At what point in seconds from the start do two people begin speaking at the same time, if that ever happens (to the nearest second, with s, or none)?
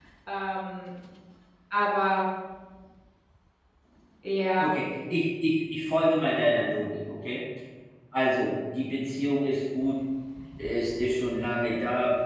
none